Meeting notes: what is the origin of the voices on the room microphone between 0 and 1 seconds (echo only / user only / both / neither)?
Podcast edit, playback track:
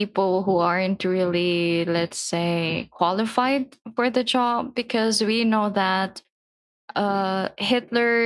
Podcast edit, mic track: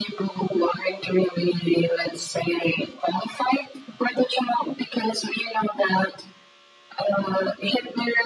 echo only